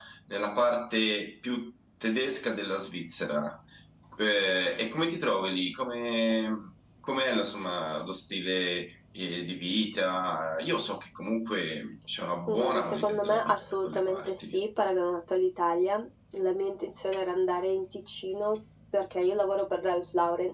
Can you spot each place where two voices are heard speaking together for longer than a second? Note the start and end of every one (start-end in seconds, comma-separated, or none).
12.5-14.5